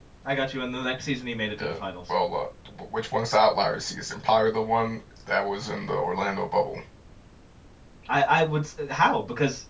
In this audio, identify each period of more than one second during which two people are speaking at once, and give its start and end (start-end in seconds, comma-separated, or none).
none